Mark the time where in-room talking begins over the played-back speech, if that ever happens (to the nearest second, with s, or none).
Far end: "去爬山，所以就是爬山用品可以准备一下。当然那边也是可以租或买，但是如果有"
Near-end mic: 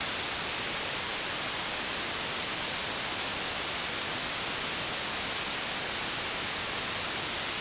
none